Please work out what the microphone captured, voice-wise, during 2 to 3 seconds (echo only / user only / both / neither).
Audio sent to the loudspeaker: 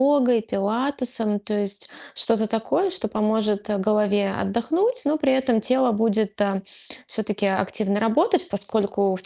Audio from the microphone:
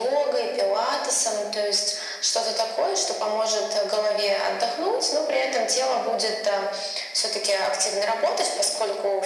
echo only